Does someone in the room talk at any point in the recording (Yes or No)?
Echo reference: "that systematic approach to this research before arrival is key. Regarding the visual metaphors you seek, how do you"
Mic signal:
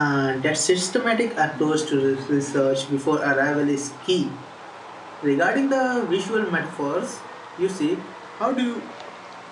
No